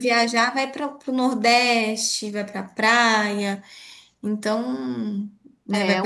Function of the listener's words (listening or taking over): taking over